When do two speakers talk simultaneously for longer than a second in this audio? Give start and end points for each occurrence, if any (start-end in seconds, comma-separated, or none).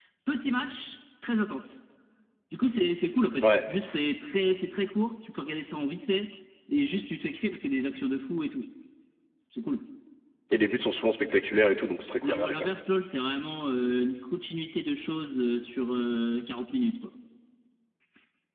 none